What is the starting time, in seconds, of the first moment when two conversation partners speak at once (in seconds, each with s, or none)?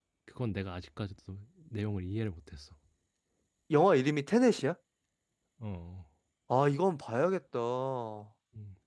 none